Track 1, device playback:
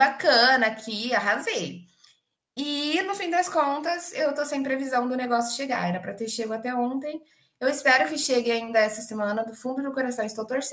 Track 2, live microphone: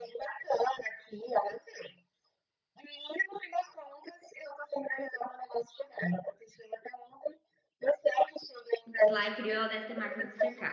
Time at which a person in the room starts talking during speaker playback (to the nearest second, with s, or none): 9 s